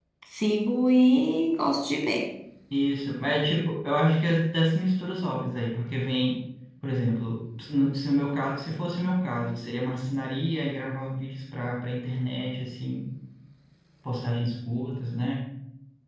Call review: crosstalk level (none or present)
none